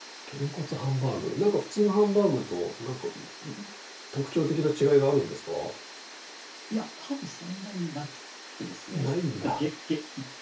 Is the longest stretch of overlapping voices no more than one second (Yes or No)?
Yes